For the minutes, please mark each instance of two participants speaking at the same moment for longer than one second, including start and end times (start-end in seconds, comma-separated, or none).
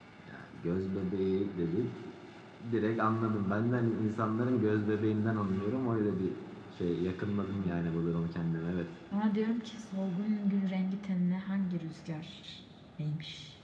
none